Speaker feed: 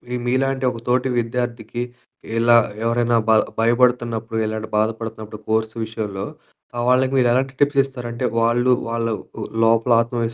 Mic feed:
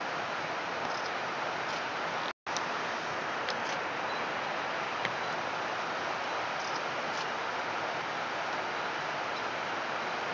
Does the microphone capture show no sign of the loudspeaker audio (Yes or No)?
Yes